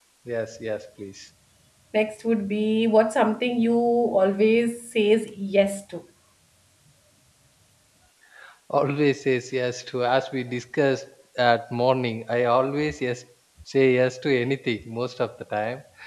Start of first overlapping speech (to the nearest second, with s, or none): none